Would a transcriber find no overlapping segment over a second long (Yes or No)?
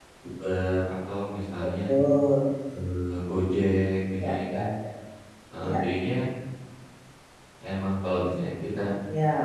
Yes